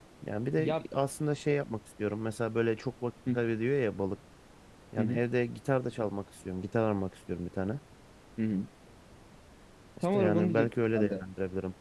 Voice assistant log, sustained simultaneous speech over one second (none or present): present